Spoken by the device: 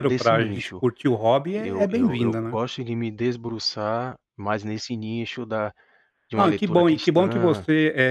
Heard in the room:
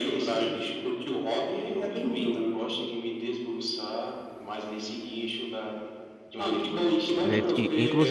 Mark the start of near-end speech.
7.2 s

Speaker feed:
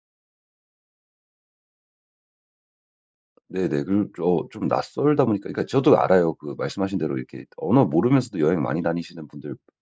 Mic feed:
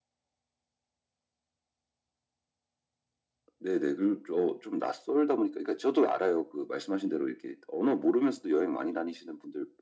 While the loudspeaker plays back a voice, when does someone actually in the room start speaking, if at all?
none

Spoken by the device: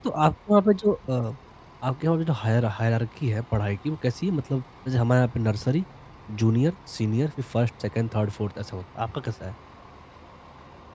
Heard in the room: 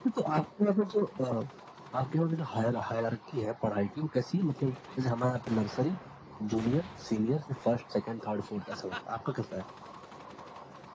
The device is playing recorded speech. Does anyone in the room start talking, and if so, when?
none

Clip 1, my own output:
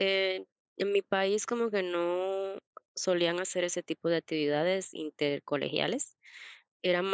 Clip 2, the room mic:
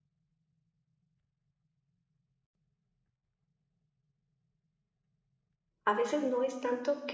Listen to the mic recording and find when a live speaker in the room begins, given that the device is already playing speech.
5.8 s

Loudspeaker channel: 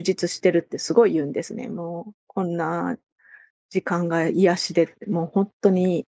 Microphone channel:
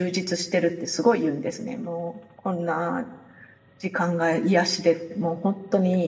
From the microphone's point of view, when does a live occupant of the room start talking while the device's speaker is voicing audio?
none

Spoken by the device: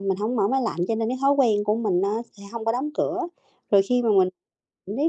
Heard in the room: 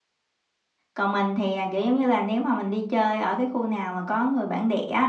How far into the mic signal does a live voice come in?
0.9 s

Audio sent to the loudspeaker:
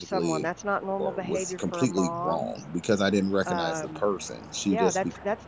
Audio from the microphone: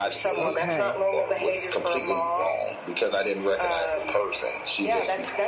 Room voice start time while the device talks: 0.4 s

